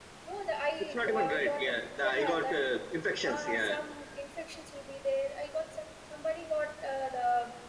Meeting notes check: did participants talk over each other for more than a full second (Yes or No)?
Yes